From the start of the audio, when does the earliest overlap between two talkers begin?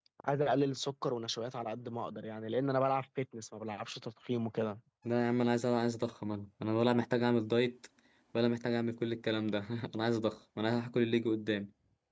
none

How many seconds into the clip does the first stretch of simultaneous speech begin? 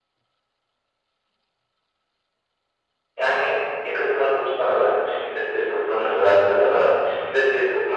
none

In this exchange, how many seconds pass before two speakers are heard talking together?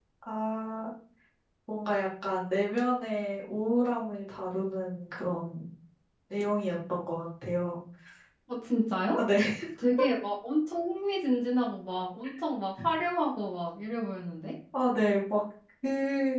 none

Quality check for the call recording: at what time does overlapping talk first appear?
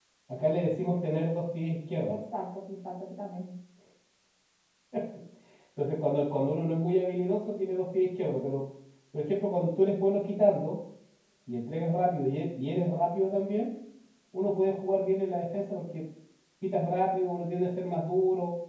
none

